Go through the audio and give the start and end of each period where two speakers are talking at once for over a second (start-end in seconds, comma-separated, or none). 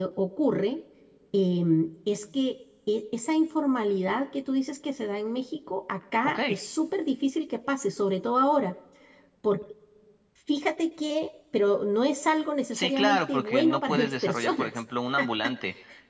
12.7-14.7